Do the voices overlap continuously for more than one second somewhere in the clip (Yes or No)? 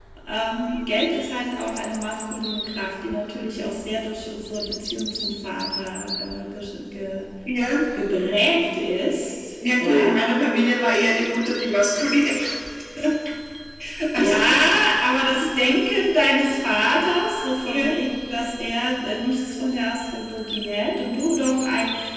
No